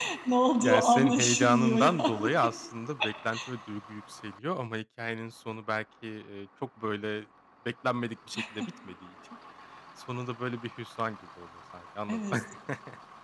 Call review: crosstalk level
present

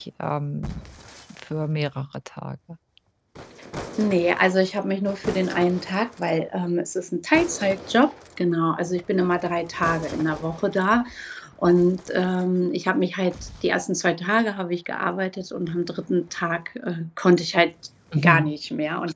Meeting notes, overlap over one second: none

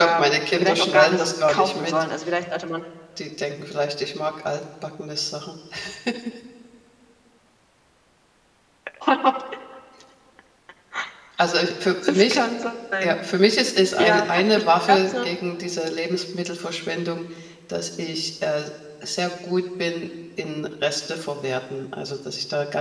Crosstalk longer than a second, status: present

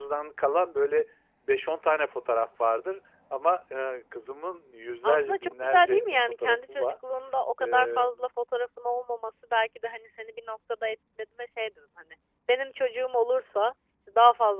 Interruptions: present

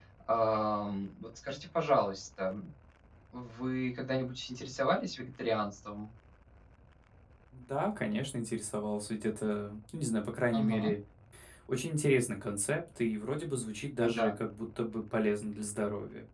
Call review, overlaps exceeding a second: none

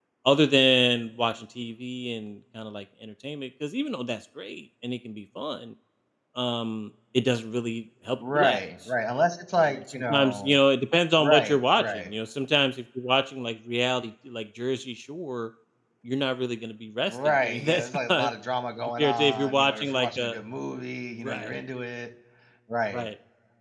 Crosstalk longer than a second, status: present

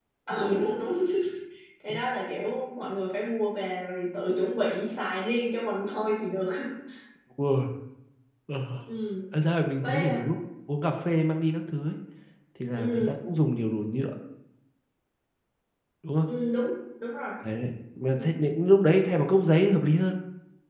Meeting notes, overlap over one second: none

